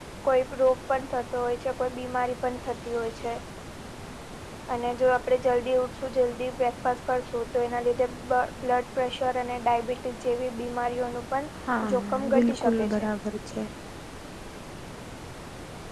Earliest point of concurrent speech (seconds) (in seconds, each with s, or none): 11.7 s